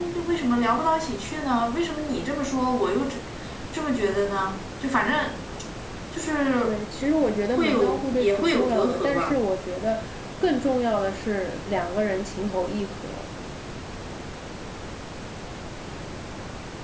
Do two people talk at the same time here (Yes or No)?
Yes